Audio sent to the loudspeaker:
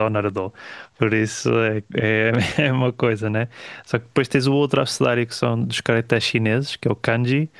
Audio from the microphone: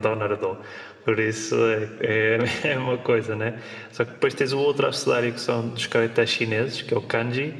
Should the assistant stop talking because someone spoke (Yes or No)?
No